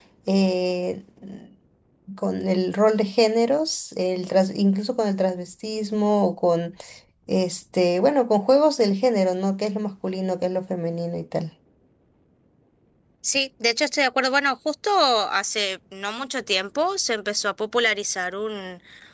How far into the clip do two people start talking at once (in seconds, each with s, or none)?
none